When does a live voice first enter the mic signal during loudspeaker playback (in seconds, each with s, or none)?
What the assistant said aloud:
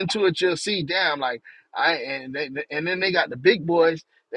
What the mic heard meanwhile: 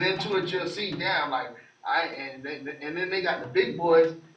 none